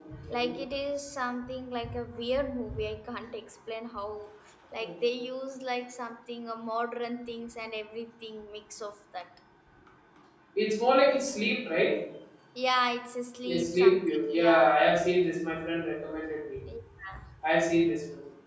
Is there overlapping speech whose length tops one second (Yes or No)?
Yes